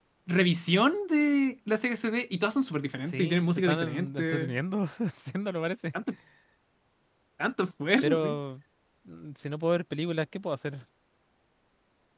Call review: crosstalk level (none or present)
present